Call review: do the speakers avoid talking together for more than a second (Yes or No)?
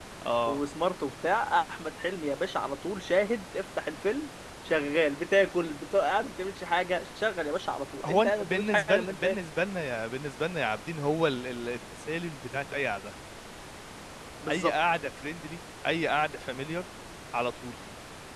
No